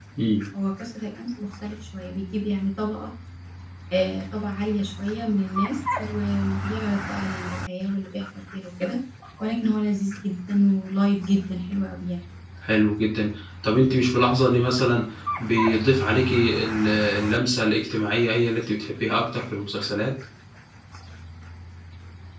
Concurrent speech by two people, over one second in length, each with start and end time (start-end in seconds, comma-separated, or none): none